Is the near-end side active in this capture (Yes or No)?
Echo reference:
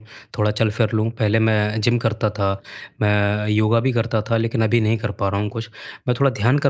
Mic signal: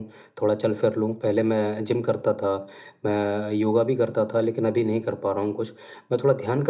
No